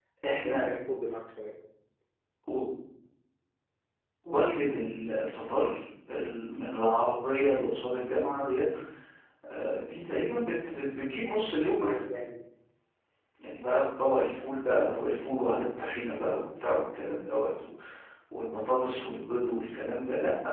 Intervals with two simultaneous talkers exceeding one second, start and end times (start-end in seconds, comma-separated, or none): none